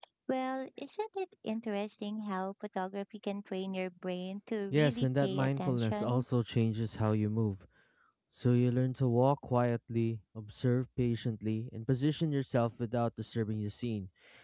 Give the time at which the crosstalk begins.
4.7 s

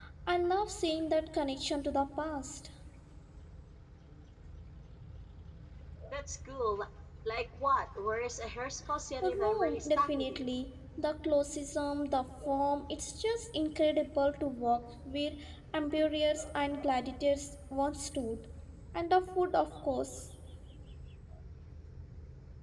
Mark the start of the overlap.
9.2 s

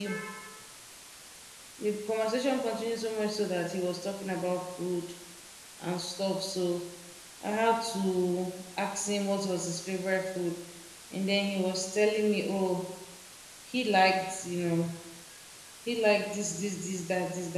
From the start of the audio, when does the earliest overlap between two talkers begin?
none

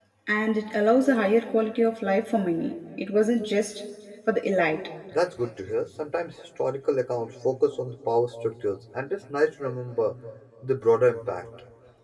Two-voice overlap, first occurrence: none

